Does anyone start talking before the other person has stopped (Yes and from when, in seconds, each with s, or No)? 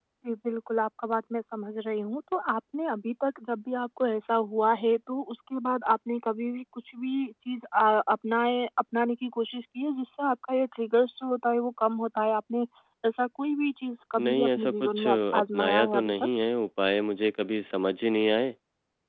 Yes, from 14.2 s